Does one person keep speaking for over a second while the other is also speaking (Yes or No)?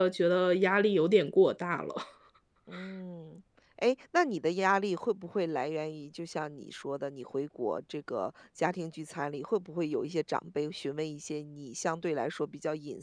No